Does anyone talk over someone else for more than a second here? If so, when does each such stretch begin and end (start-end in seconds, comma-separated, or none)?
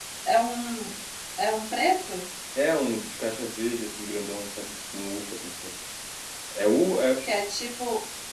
none